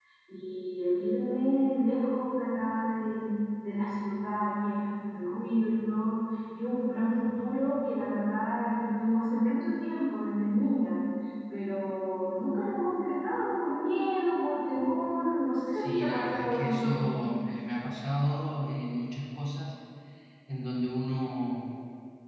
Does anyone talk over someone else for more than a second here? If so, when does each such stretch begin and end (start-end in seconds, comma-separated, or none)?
15.7-17.2